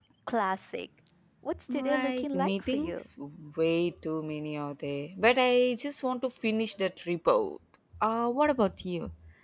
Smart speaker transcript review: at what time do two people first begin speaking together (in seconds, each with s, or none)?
1.7 s